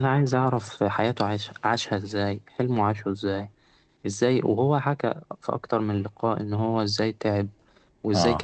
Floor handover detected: No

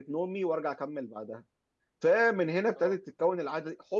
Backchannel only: Yes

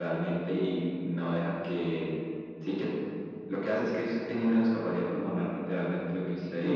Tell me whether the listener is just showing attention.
No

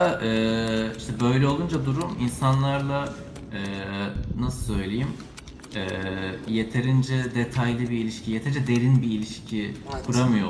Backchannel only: No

